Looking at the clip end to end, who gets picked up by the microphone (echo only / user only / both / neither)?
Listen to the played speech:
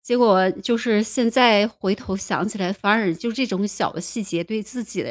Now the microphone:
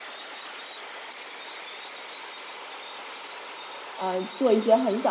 user only